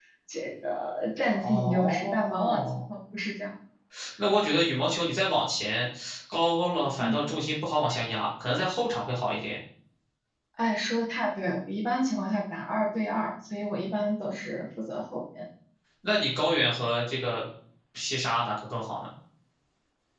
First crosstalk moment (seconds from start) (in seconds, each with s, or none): 1.4 s